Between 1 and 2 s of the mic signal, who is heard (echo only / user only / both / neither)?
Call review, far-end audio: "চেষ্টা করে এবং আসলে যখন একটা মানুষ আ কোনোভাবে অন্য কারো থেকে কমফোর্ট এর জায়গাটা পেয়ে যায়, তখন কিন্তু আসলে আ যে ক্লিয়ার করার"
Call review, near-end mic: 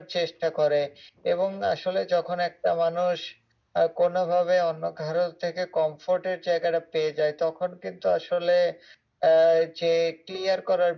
echo only